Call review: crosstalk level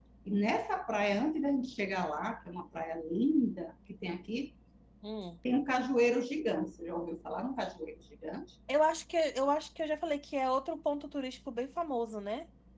none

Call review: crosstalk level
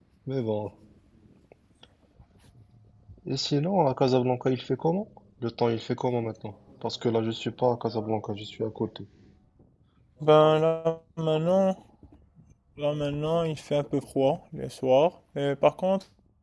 none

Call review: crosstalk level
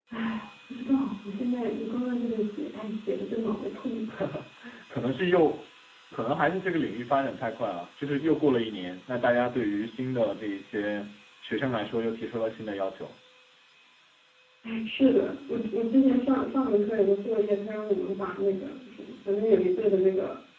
none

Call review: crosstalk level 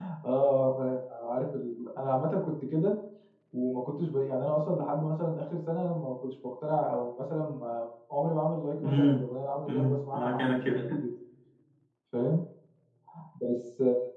present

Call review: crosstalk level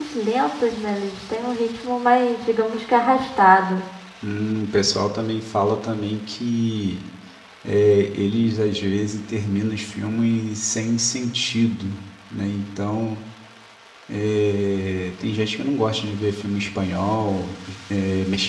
none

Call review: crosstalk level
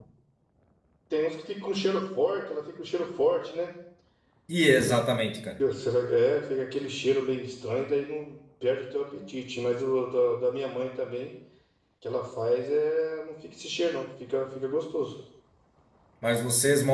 none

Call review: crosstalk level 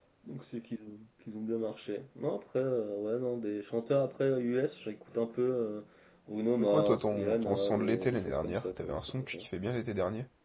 present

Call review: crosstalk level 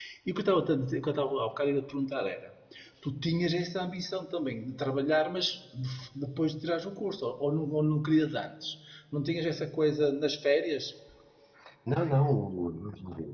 none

